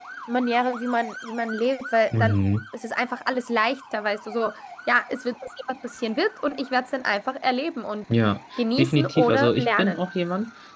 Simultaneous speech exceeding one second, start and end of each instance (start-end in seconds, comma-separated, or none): 8.8-10.1